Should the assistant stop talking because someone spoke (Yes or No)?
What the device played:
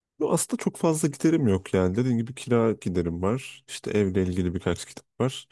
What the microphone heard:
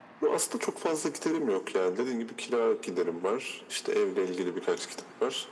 No